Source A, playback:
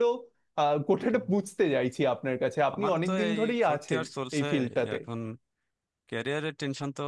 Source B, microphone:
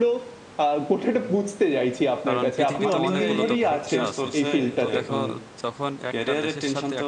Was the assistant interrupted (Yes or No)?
Yes